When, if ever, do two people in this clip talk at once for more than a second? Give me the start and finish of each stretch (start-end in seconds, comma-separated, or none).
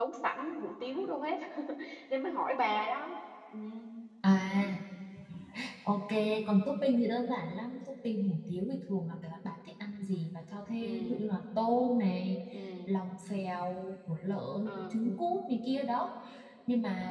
none